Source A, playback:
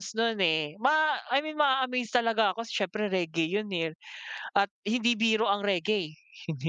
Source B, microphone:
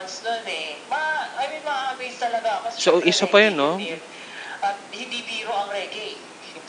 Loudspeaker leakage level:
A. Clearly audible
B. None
A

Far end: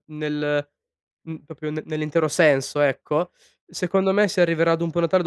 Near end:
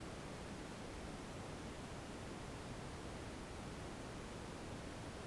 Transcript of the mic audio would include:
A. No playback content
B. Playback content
A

